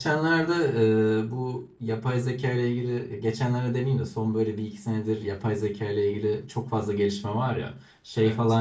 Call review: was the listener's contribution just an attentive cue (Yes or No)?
Yes